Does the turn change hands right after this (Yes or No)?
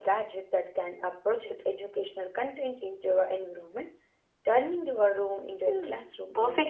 Yes